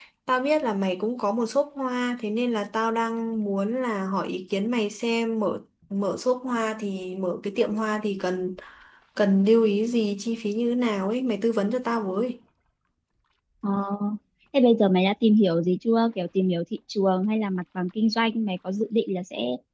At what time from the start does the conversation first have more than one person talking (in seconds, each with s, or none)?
none